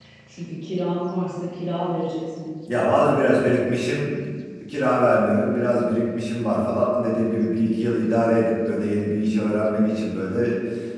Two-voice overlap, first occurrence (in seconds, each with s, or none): none